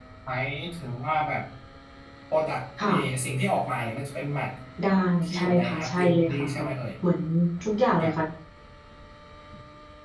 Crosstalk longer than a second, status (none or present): present